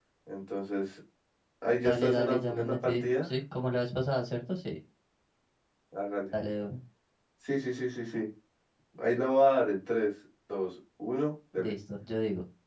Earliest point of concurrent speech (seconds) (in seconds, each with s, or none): 1.8 s